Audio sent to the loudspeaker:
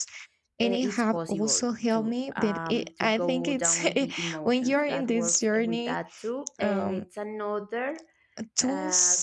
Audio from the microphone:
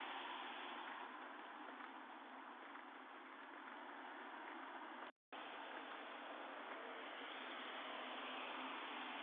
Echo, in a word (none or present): none